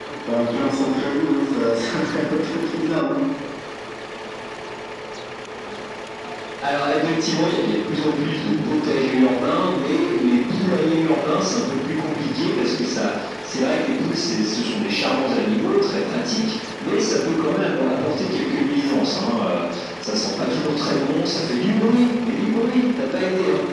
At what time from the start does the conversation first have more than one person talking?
none

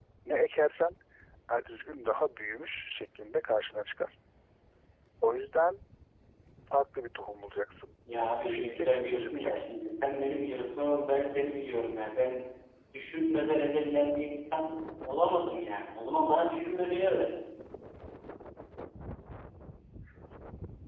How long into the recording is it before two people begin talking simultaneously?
8.5 s

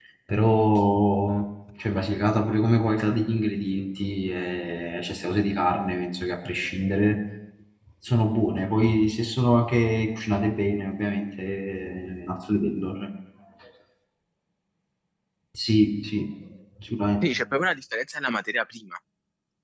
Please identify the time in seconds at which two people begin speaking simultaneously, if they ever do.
none

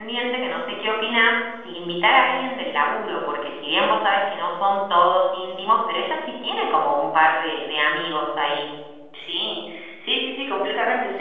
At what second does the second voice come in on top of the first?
none

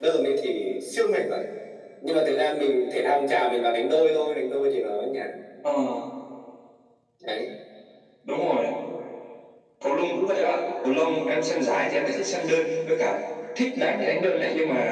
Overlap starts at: none

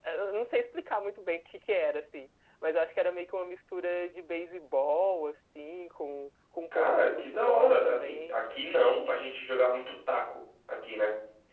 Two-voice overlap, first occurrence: 6.7 s

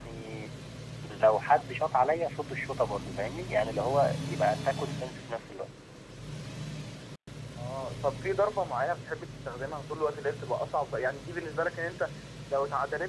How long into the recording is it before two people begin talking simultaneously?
none

